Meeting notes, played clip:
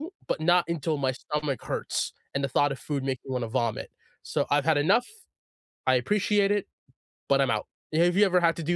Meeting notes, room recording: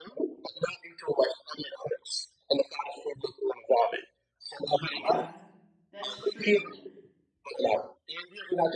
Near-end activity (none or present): present